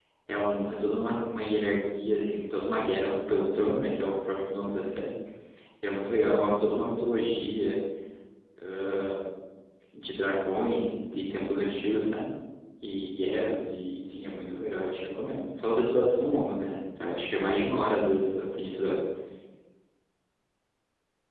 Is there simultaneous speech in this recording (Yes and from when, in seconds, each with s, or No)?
No